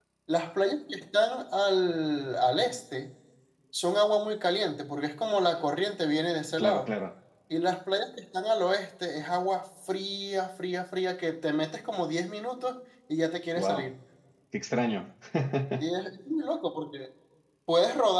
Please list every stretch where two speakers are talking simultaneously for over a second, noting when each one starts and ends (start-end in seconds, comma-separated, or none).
none